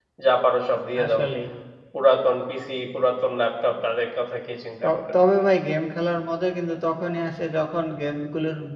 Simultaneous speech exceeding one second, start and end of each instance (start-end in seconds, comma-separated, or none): none